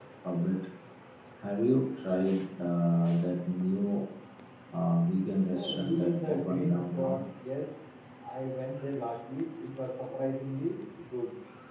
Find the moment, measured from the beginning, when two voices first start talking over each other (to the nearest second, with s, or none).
5 s